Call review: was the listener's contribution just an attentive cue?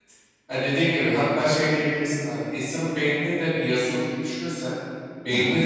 Yes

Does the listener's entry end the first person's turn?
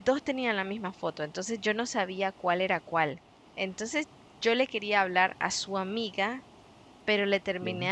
No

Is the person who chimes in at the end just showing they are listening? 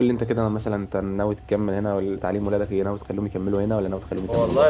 No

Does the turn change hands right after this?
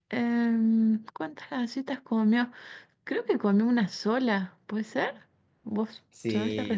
Yes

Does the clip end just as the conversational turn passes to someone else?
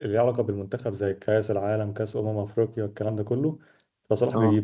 No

